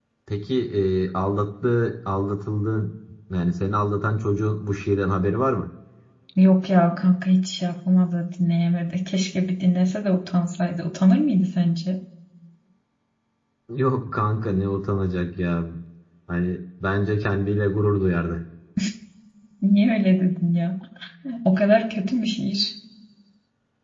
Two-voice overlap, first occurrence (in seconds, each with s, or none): none